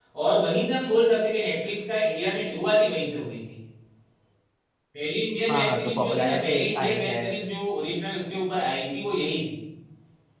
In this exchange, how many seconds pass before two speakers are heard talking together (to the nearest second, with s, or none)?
5 s